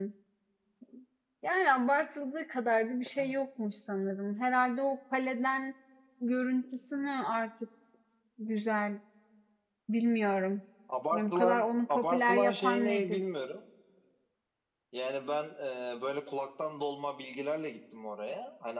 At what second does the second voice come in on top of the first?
11.1 s

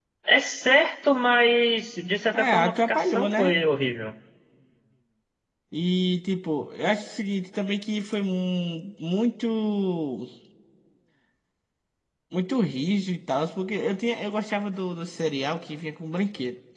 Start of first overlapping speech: 2.3 s

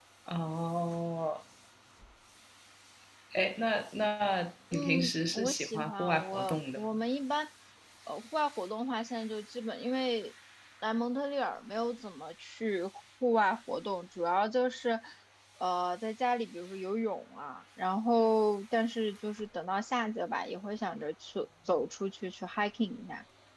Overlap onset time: 4.7 s

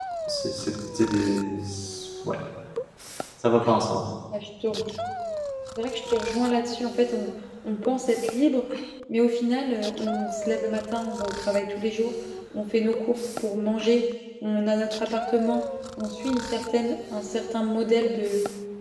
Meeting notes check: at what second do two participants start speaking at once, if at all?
none

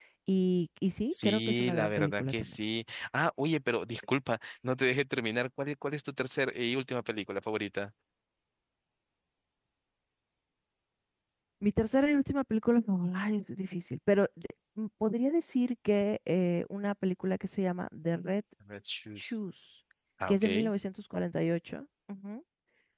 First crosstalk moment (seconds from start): 1.1 s

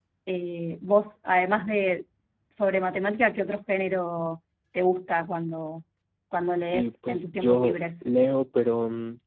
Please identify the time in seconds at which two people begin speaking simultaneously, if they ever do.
6.6 s

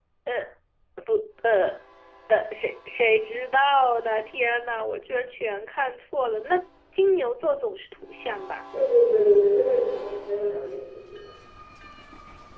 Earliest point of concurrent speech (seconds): none

